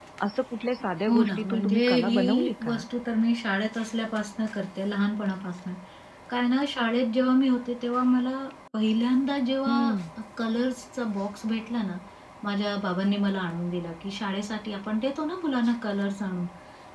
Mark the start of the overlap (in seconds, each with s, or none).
1.1 s